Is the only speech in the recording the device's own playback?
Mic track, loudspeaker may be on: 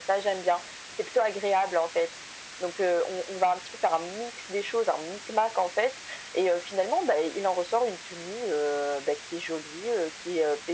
Yes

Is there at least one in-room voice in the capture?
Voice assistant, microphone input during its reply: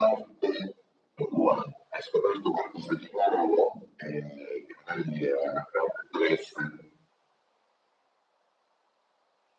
No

